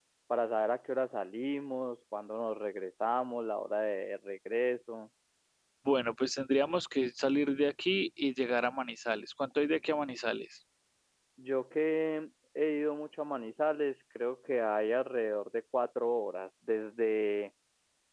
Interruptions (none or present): none